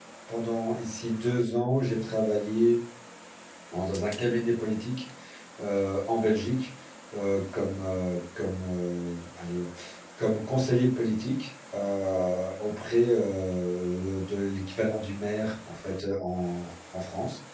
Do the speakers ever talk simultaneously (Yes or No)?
No